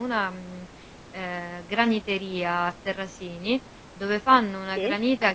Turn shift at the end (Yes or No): No